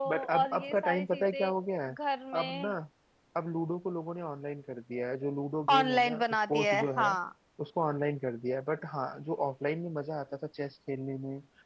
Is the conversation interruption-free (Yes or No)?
No